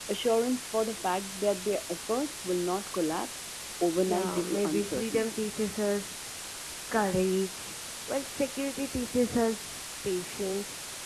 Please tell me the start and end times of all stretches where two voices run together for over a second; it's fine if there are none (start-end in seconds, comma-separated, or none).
4.0-5.4